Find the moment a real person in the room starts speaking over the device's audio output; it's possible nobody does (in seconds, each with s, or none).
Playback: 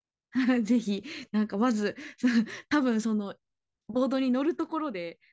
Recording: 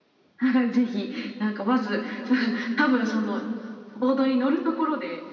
none